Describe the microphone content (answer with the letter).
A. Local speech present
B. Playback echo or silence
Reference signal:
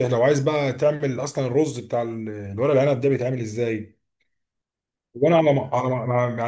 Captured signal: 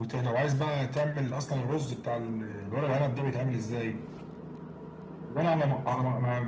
B